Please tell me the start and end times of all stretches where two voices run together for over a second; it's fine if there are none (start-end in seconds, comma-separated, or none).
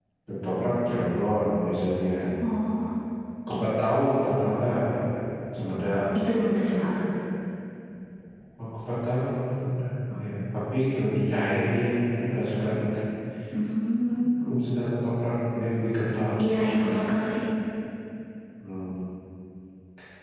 none